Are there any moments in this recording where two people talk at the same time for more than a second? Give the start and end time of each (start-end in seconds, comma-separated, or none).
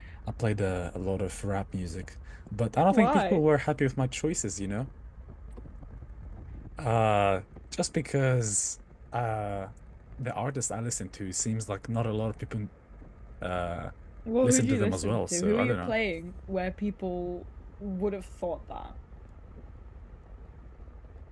14.4-15.9